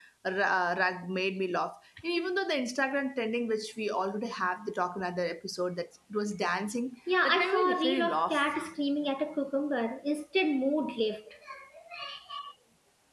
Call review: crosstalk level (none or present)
present